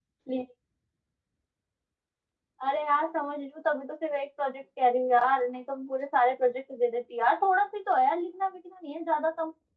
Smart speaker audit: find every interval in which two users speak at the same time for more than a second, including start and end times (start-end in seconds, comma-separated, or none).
none